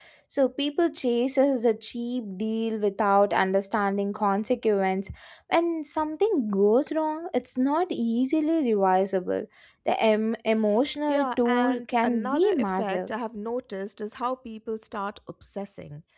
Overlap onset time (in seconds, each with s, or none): 11.1 s